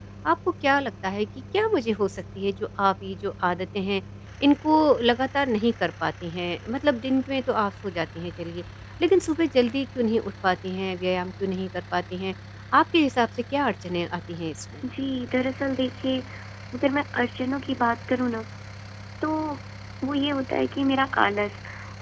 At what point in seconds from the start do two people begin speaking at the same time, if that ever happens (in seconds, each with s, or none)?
none